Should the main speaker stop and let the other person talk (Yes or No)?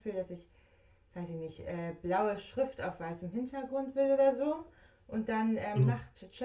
No